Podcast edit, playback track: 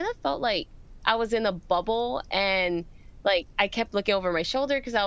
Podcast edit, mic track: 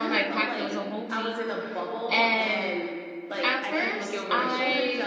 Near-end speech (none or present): present